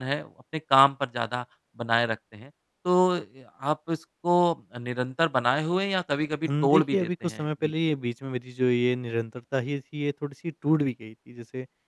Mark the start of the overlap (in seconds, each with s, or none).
6.4 s